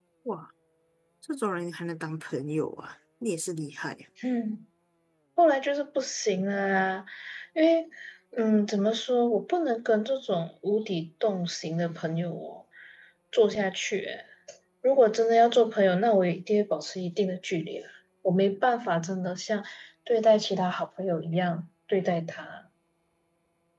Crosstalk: none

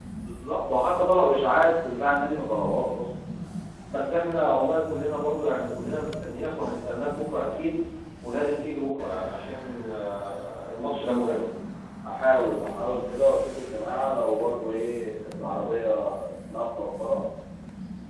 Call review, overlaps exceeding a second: none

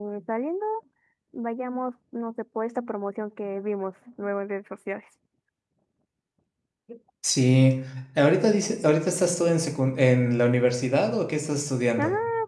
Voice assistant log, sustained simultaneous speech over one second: none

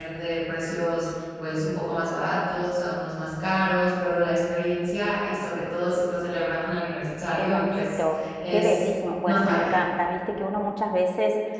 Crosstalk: present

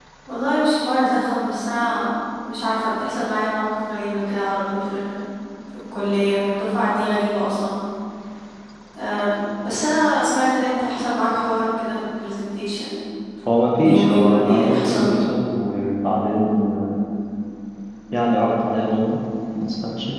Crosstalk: present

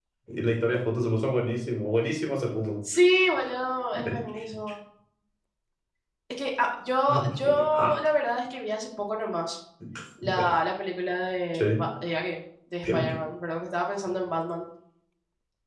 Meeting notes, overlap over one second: none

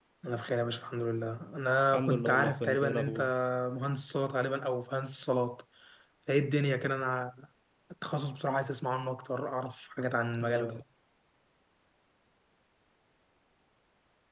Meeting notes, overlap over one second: present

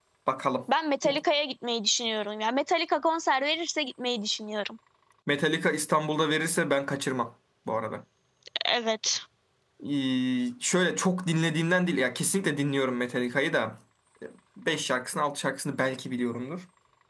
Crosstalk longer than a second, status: none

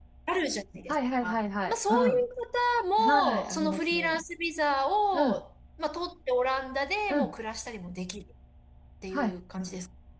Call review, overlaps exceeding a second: present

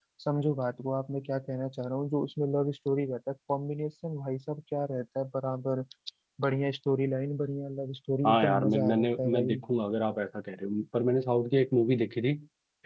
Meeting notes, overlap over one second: present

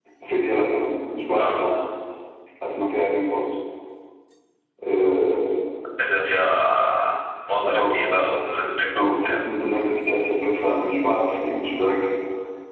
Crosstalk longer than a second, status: none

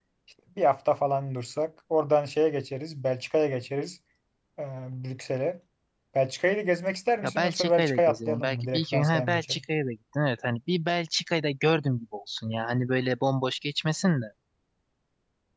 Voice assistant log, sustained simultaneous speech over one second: present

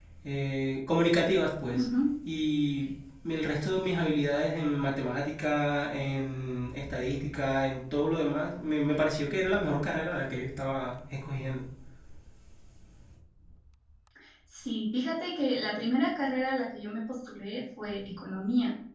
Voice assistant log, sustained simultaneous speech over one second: none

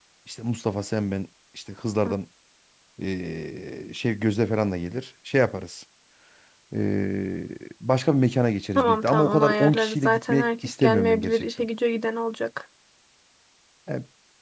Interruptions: present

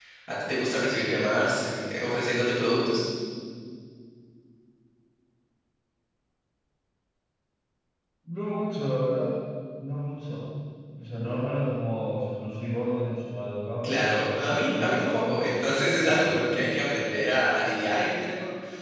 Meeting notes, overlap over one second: present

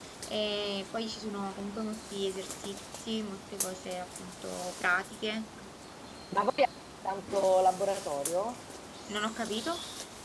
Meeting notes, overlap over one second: none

